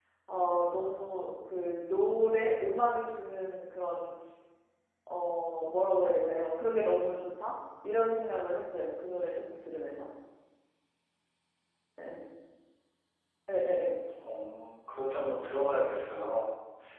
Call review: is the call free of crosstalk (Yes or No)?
Yes